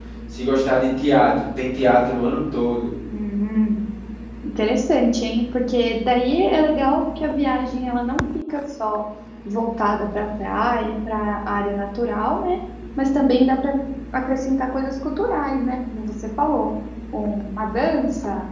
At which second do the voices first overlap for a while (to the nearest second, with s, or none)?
none